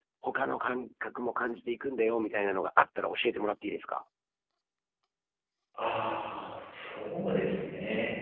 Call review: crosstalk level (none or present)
none